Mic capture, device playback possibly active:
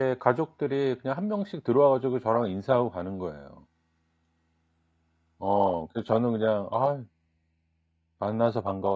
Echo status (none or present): none